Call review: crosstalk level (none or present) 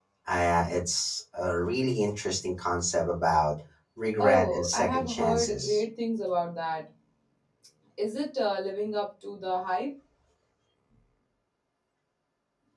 present